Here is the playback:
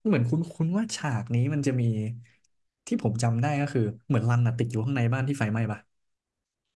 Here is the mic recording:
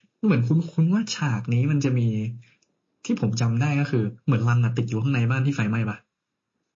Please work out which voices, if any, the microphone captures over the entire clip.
echo only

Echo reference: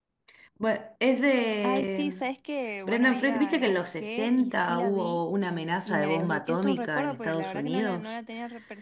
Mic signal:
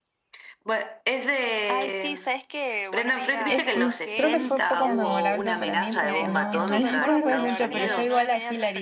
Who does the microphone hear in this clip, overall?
both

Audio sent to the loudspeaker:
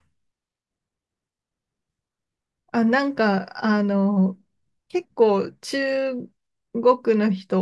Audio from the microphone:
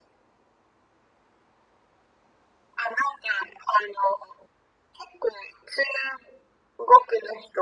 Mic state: echo only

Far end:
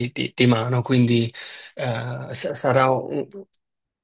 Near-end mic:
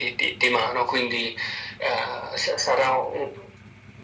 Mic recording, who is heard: echo only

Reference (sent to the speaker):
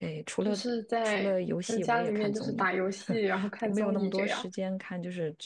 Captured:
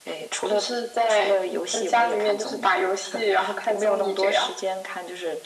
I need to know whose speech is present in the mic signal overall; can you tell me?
echo only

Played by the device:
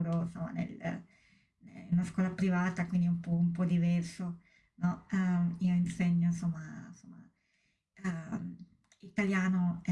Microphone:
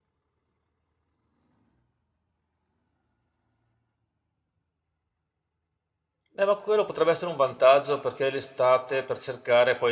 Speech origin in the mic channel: user only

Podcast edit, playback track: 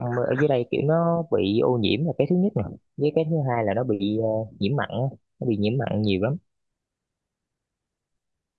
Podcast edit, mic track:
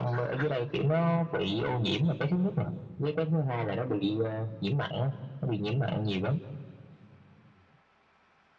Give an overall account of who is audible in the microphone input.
echo only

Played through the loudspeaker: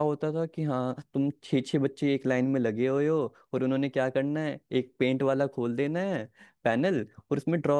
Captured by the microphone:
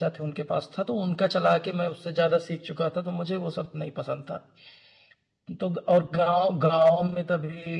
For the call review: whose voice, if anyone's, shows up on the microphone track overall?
user only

